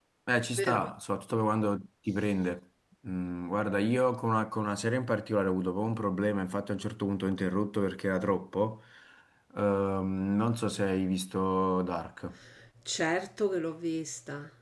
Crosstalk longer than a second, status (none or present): none